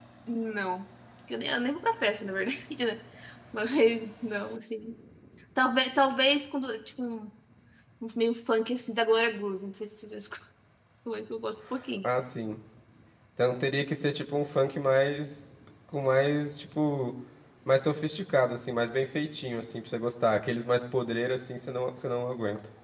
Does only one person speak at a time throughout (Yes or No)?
Yes